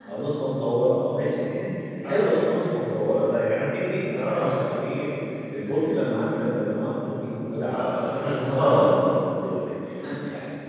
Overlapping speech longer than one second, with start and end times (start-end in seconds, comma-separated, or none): 7.7-9.0